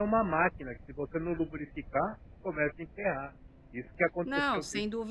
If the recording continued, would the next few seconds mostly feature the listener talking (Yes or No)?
Yes